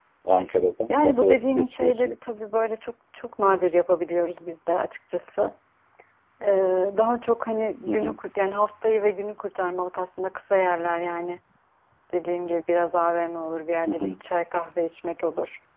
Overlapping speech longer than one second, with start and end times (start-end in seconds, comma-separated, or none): 0.9-2.2